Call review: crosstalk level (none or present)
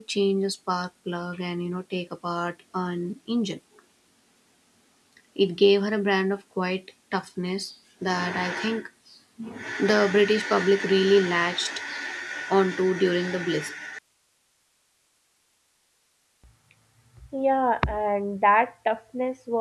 none